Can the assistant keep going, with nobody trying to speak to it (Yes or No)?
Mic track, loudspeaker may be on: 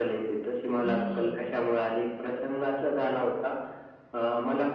No